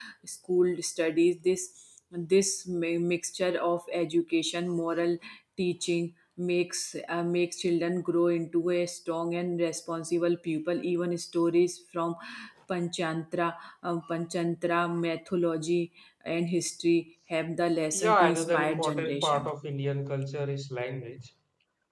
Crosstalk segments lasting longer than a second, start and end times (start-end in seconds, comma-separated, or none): 17.9-19.5